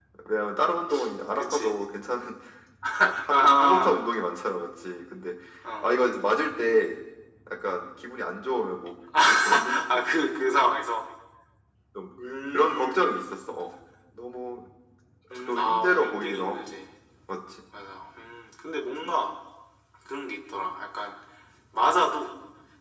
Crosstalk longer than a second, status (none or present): present